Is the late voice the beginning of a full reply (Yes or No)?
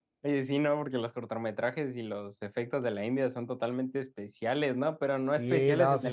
Yes